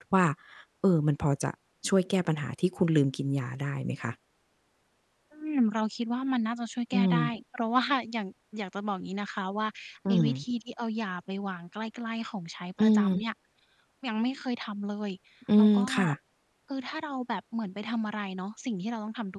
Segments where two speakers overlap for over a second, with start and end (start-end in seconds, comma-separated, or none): none